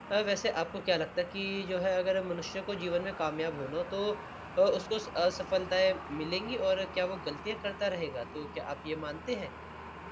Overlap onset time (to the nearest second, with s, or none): none